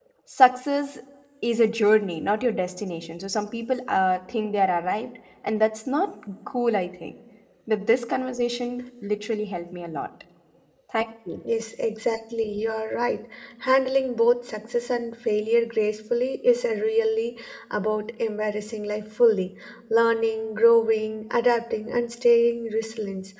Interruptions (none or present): none